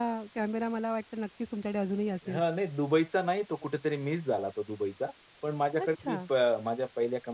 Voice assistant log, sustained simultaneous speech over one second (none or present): none